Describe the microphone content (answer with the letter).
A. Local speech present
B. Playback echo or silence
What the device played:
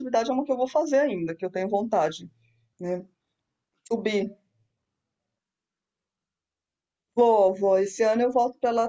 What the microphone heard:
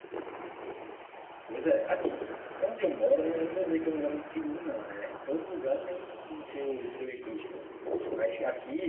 A